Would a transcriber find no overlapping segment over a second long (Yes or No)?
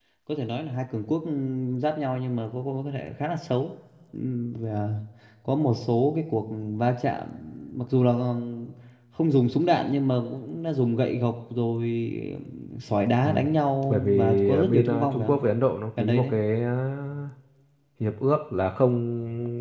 No